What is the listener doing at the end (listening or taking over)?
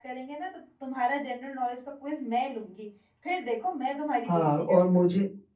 taking over